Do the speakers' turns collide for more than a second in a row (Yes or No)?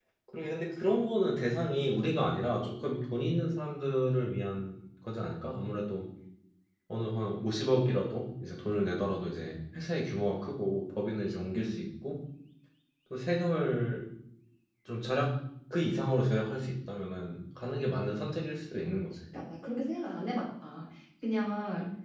No